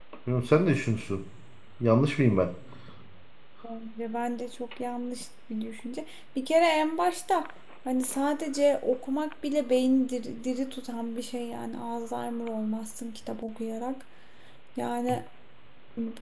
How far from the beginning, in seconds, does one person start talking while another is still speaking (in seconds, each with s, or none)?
none